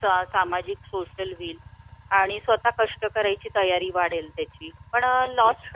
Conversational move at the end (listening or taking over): listening